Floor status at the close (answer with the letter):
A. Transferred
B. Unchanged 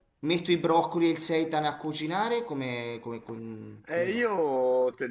A